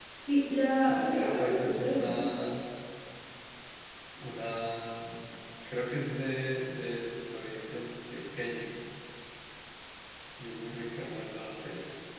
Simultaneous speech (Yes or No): Yes